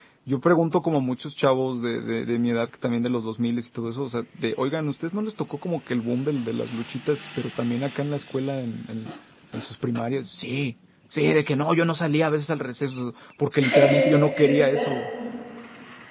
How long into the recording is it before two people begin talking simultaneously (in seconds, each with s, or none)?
13.6 s